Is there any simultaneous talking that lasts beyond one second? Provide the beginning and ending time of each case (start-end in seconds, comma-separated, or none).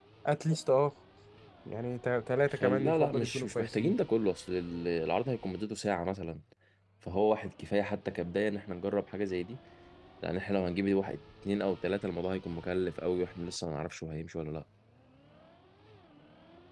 2.5-4.0